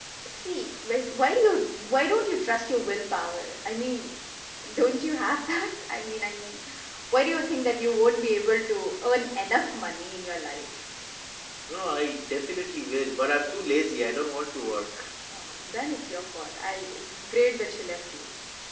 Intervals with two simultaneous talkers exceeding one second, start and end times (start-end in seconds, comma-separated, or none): none